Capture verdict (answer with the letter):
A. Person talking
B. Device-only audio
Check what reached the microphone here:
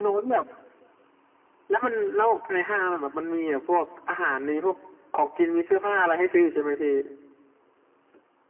B